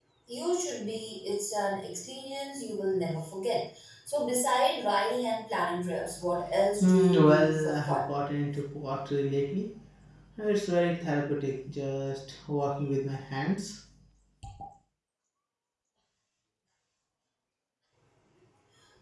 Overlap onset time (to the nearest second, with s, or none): 7 s